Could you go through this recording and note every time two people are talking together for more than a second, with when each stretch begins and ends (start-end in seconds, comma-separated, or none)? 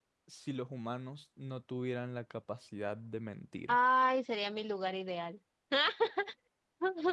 none